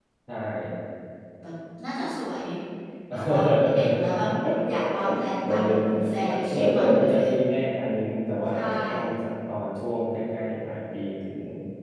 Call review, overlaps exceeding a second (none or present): present